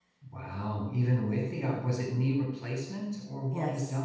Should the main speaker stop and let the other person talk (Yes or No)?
Yes